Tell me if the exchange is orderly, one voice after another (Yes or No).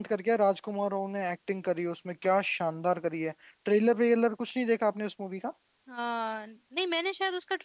Yes